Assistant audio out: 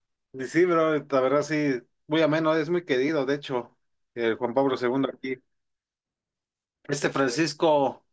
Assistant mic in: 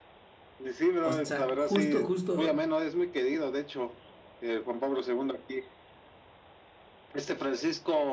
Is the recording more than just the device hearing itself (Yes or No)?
Yes